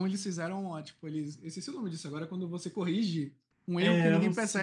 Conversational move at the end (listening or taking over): taking over